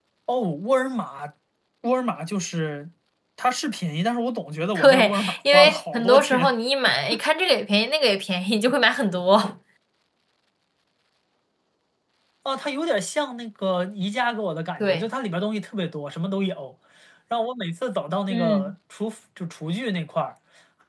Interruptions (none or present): present